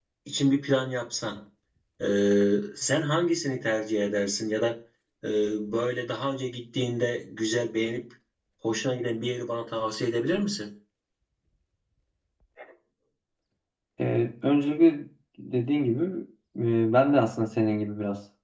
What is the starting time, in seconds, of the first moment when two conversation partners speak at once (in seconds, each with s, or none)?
none